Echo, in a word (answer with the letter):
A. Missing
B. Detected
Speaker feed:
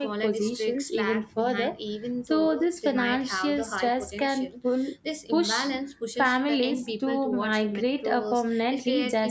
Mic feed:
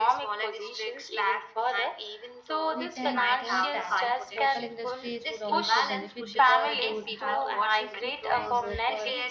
B